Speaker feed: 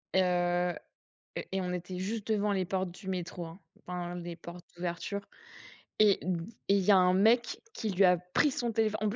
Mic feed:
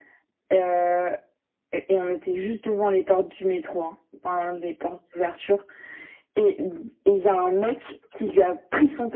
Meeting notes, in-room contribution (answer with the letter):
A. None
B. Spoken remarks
A